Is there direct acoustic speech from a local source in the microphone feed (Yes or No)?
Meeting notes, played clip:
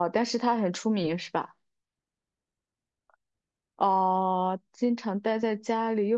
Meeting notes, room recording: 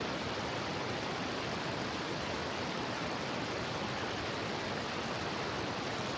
No